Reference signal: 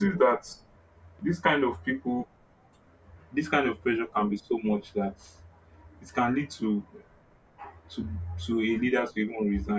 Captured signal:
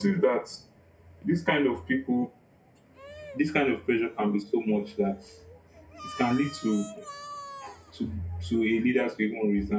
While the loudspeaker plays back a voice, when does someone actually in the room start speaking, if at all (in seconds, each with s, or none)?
none